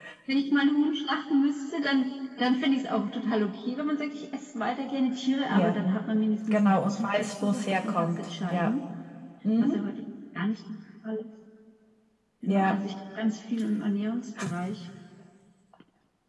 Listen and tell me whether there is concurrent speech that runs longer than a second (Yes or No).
Yes